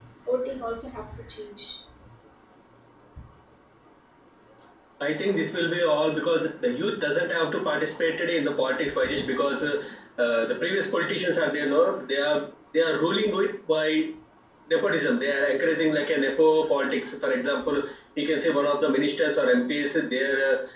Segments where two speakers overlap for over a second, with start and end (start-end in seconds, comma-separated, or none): none